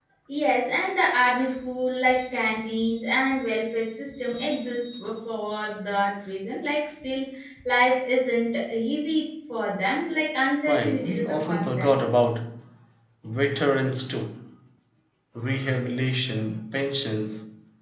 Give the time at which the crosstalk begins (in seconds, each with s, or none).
10.7 s